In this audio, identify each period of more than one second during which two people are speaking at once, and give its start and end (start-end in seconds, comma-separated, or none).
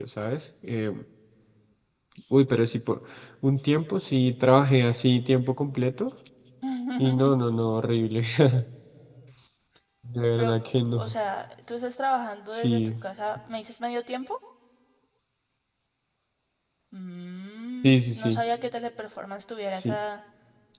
none